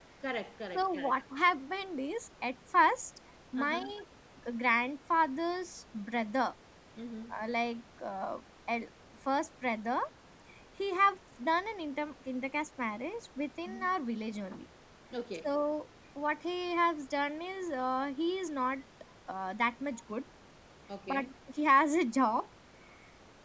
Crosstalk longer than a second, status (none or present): none